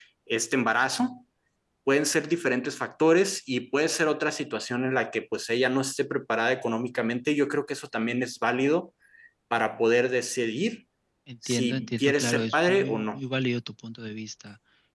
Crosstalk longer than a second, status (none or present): present